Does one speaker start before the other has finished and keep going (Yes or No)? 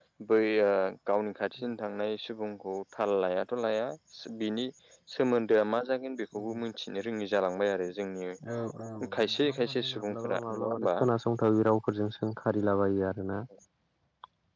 Yes